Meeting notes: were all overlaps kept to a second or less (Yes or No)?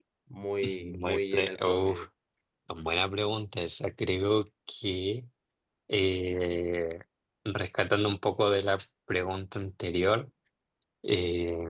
No